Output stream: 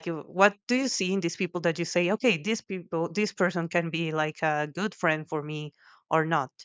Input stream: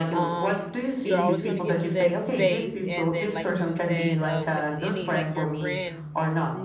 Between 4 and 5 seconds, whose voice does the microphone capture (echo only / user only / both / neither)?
both